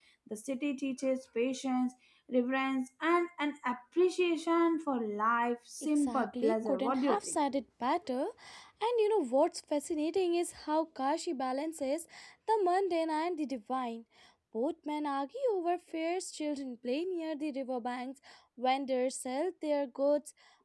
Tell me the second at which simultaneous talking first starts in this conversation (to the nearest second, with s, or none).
6 s